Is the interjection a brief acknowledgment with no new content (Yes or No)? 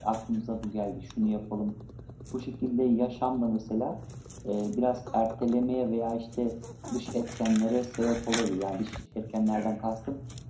Yes